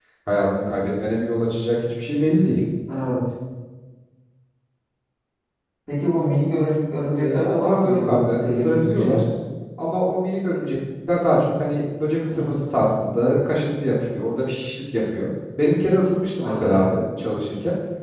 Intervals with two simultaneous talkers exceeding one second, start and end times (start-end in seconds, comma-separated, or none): 7.2-9.2